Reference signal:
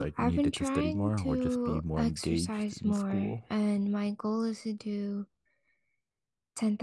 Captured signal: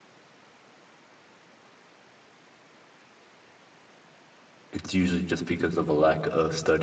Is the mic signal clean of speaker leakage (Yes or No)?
Yes